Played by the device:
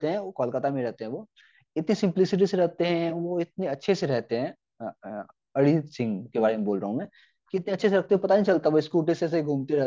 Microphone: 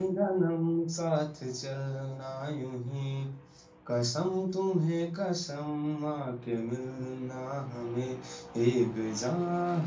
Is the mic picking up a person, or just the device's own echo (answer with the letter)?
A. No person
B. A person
B